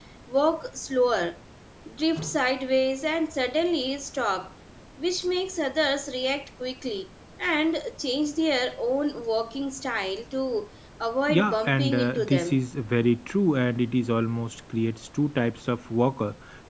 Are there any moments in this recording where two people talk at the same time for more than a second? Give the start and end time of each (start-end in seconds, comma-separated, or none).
11.3-12.7